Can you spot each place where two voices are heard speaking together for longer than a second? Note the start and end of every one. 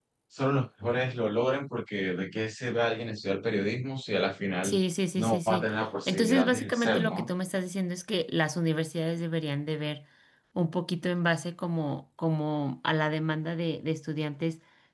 6.1-7.3

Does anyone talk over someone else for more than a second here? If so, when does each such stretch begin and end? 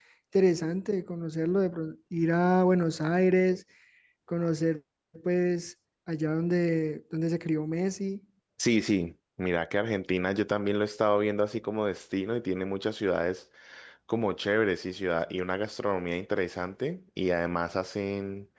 none

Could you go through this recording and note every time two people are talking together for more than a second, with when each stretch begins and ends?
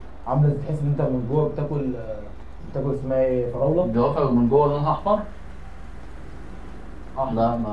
none

